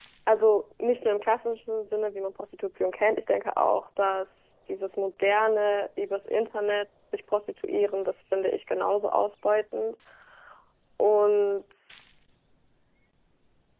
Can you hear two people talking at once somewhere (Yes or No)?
No